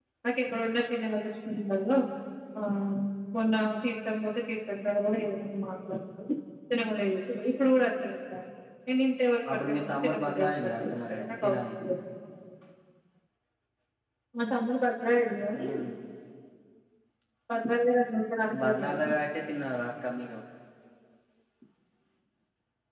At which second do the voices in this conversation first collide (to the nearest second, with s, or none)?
10 s